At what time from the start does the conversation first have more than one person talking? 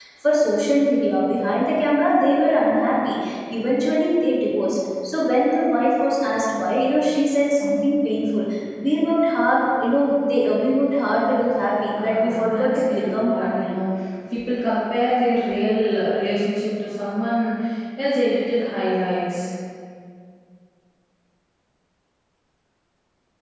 11.9 s

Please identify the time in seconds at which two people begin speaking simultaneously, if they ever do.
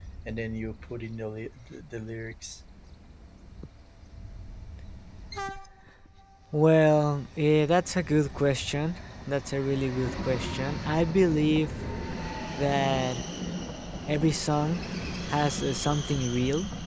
none

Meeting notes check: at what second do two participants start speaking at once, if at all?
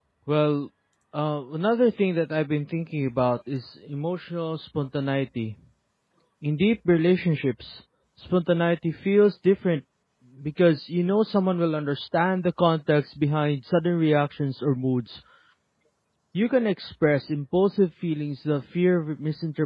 none

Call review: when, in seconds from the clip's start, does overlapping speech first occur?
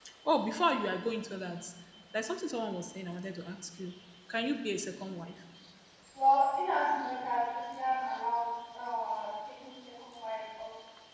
none

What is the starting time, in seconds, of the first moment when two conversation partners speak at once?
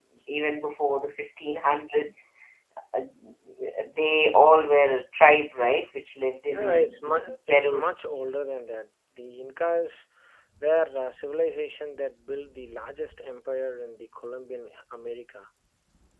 6.4 s

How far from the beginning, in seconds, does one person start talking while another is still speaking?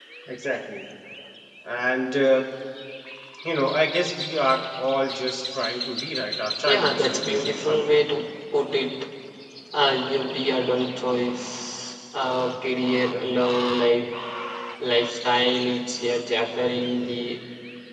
6.7 s

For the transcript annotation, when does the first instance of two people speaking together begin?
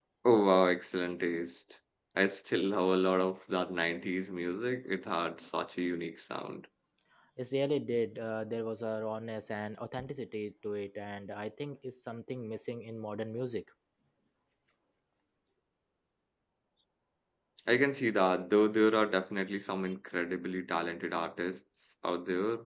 none

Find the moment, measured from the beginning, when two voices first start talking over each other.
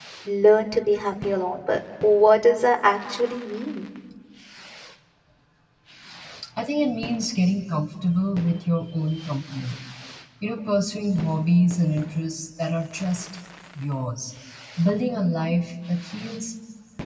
none

